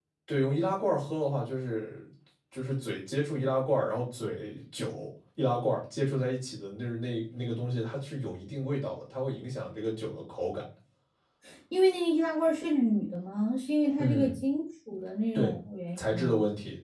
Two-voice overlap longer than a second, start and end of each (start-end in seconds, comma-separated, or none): none